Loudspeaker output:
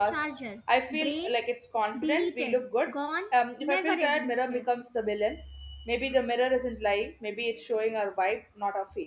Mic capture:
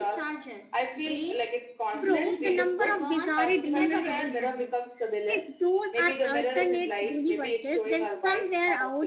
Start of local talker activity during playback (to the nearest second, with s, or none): 2 s